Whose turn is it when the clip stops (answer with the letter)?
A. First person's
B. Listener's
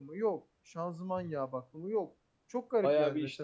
B